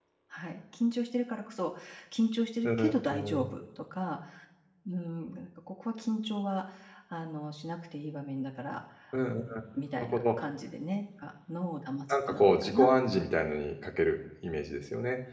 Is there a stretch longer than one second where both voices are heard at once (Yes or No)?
Yes